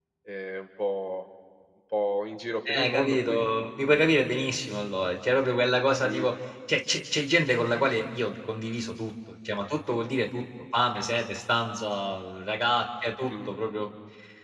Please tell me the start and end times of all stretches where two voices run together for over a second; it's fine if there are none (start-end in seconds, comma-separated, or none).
2.7-4.0